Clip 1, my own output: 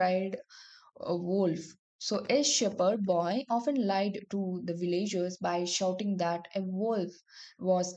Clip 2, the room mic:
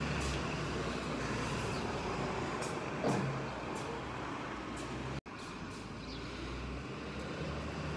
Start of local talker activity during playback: none

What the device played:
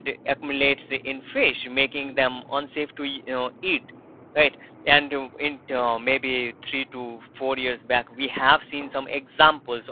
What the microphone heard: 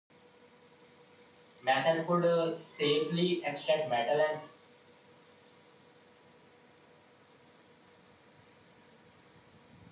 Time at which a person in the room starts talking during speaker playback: 1.7 s

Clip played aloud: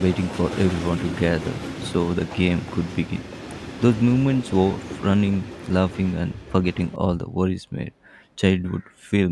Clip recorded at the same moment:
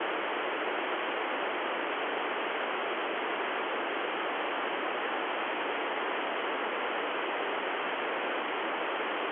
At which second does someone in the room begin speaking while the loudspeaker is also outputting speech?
none

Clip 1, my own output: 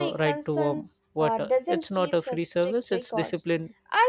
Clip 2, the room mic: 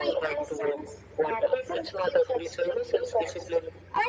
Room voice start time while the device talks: none

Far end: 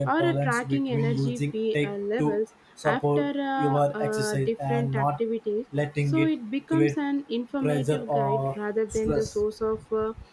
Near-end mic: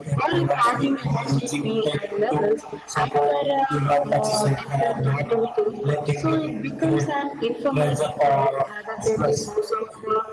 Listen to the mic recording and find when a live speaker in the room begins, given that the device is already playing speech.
none

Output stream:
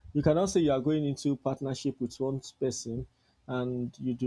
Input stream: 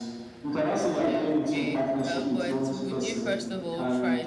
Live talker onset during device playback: 1.1 s

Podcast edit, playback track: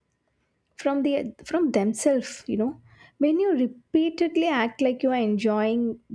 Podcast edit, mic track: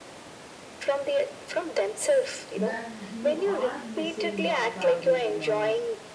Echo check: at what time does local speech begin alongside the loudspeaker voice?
2.5 s

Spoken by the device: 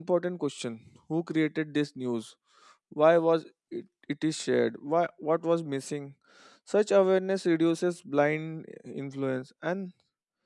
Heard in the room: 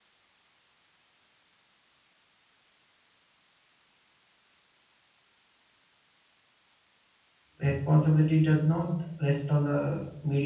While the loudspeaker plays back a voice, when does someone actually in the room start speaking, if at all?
7.5 s

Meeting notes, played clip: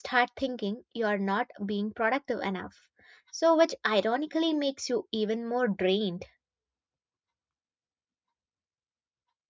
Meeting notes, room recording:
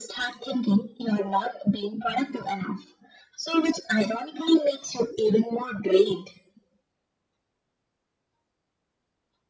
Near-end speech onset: none

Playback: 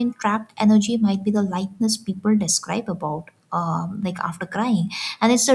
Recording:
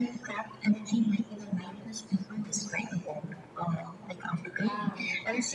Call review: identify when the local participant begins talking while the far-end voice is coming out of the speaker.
4.6 s

